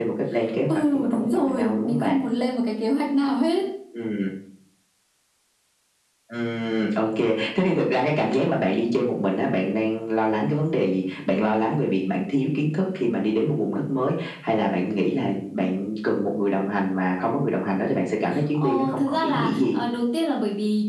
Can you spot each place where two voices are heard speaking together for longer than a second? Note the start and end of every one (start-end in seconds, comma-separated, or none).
0.7-2.2, 18.5-19.8